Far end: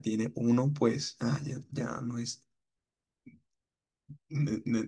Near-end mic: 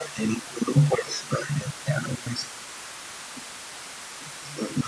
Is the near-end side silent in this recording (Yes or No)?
Yes